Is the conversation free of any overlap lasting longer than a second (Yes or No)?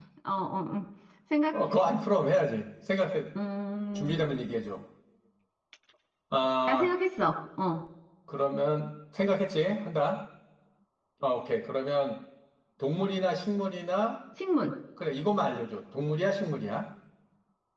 Yes